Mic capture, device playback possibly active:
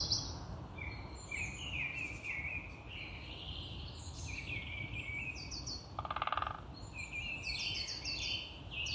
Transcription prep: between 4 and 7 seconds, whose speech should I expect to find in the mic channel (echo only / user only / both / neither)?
neither